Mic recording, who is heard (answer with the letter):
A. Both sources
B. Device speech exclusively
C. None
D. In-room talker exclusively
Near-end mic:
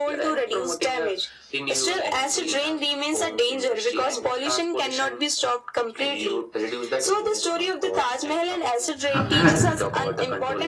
A